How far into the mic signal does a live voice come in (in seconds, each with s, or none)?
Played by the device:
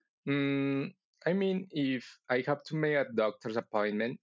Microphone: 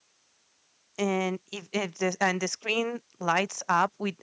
1.0 s